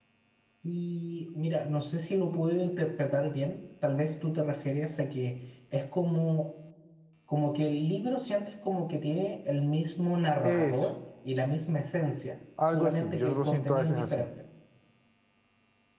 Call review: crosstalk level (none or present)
present